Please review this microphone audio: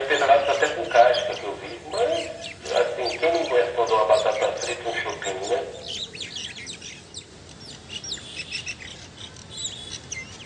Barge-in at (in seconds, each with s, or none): none